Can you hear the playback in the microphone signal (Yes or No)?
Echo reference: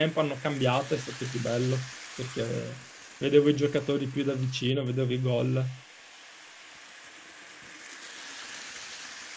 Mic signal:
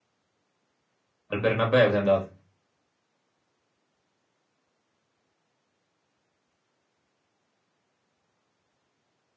No